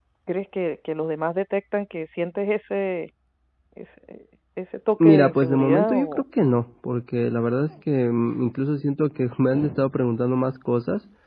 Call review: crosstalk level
present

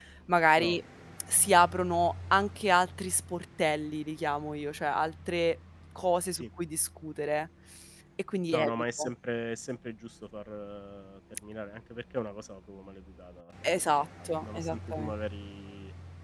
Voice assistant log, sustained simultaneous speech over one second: present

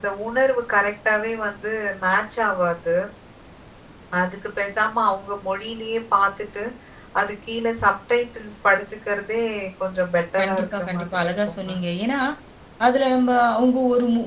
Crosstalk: present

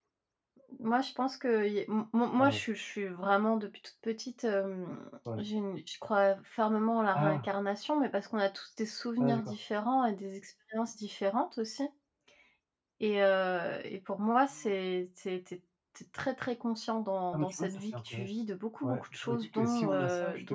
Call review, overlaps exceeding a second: present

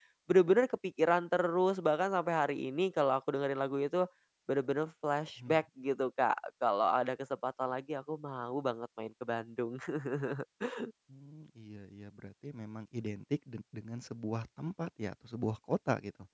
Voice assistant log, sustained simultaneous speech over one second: none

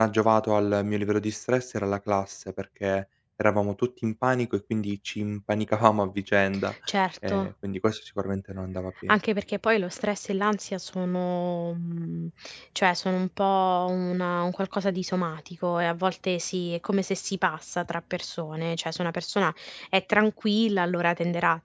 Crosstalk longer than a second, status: none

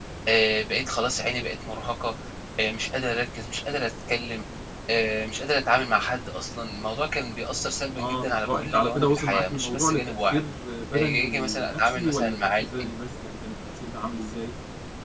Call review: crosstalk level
present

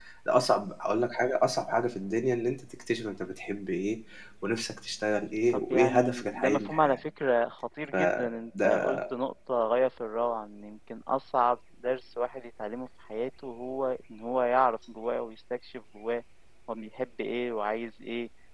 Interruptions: present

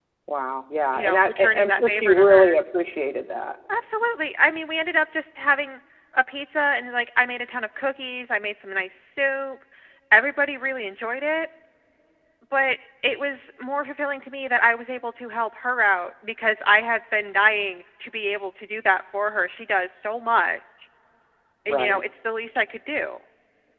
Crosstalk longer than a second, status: present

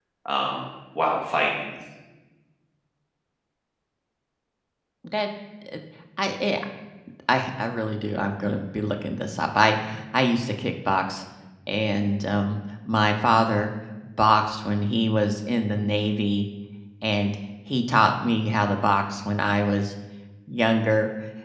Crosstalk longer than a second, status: none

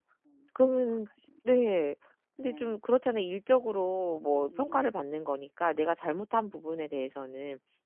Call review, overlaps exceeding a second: none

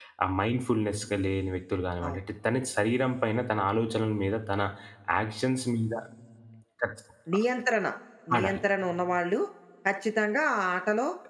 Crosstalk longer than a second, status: none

